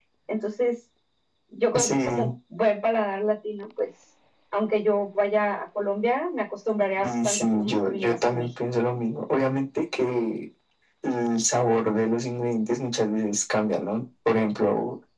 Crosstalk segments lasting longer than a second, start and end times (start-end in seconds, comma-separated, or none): 7.0-8.5